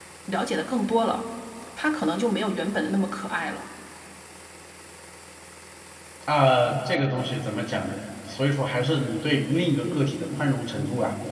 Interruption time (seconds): none

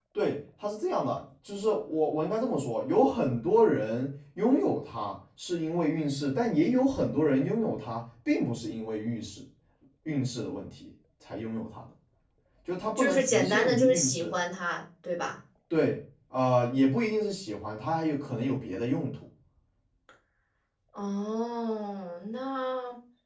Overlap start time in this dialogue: 13.0 s

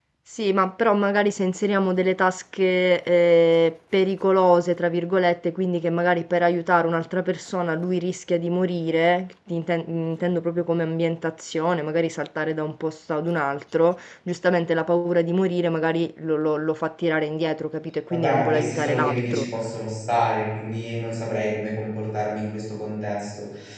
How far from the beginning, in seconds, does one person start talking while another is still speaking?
18.1 s

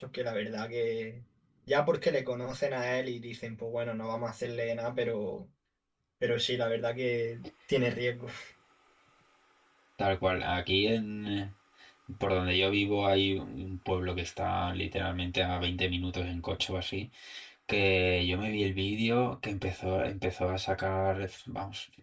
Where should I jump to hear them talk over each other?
none

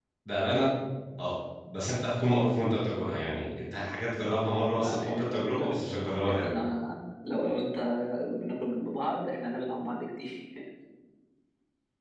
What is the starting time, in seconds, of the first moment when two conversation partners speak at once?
4.8 s

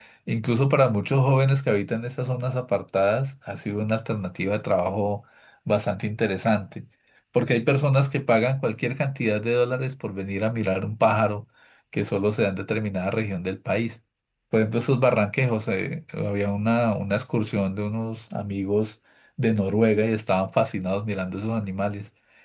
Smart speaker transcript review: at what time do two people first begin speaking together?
none

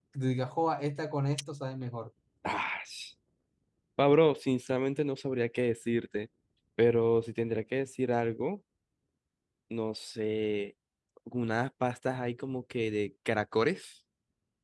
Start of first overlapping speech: none

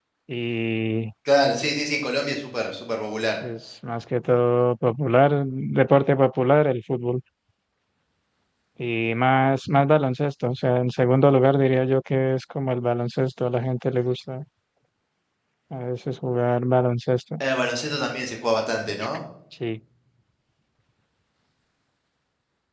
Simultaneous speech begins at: none

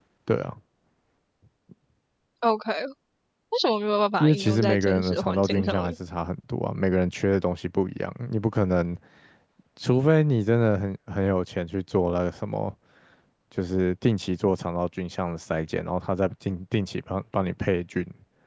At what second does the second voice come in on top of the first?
4.2 s

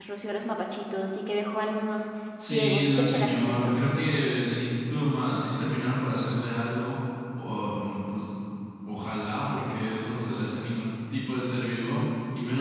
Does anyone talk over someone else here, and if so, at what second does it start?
2.4 s

